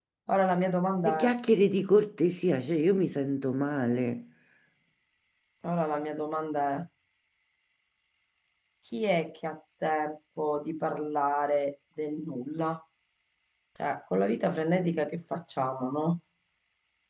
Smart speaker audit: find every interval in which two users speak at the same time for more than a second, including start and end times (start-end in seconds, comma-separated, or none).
none